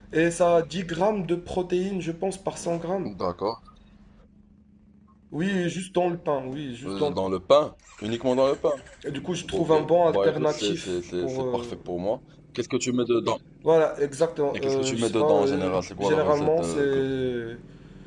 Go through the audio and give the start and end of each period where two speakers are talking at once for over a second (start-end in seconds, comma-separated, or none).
9.5-11.7, 14.5-17.0